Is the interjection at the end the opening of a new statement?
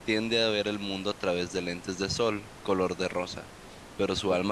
No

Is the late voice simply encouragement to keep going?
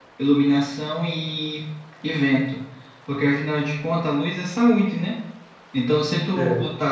Yes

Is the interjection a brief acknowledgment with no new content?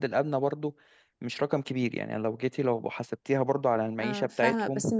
No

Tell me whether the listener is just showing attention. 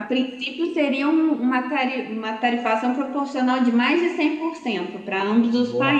No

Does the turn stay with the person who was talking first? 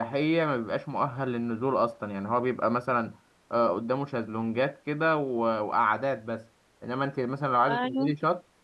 Yes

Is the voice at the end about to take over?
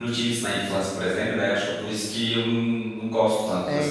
Yes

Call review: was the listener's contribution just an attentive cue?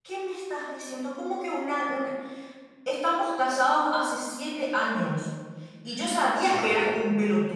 Yes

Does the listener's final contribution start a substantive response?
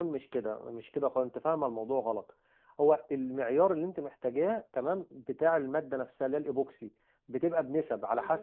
No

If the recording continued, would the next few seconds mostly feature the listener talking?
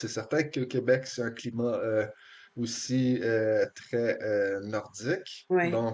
No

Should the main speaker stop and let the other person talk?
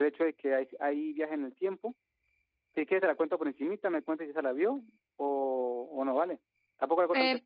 Yes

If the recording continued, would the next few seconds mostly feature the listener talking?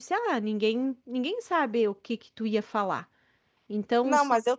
Yes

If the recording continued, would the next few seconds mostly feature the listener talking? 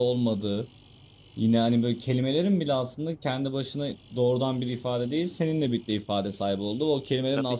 No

